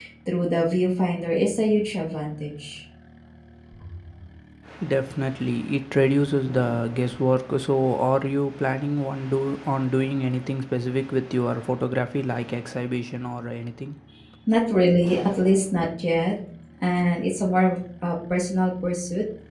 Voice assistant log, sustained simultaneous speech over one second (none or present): none